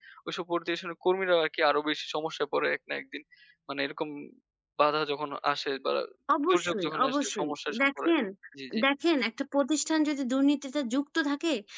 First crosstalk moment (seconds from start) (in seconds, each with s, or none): 6.5 s